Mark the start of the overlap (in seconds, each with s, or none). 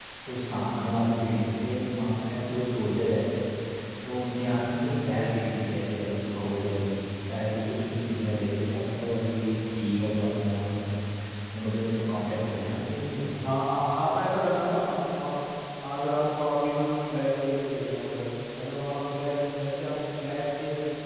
none